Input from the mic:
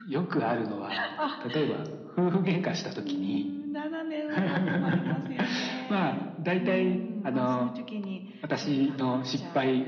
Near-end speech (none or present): none